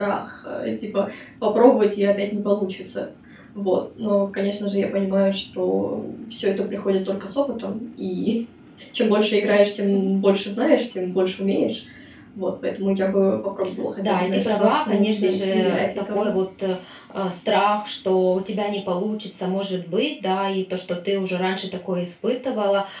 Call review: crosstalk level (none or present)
present